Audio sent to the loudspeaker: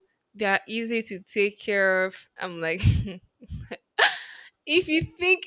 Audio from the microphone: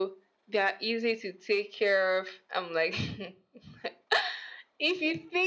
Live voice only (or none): none